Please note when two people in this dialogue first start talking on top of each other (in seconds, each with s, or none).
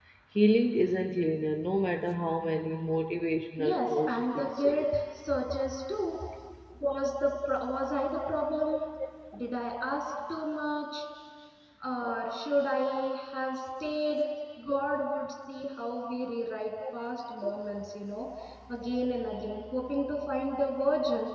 3.6 s